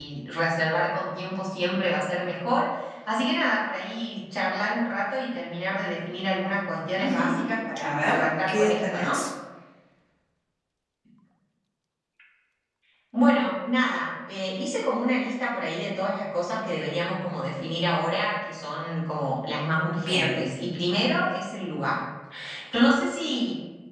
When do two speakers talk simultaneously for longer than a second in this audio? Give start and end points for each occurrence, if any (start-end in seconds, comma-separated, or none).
7.8-9.1